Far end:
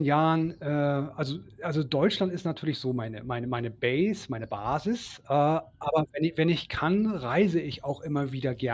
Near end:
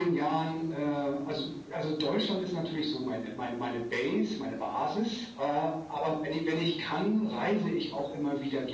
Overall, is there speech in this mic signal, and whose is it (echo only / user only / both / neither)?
echo only